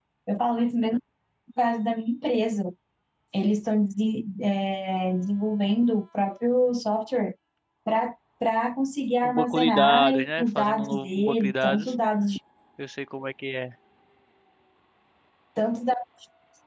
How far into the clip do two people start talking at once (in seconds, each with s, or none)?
9.2 s